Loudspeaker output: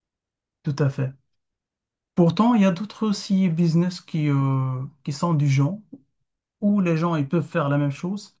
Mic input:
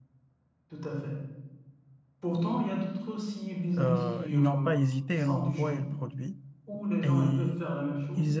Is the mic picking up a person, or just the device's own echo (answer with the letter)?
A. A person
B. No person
A